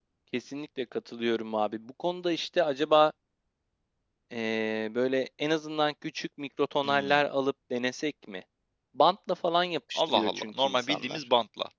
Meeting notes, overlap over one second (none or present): present